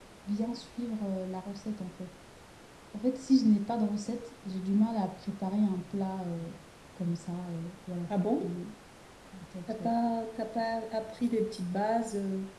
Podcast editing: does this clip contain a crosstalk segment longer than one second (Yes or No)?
No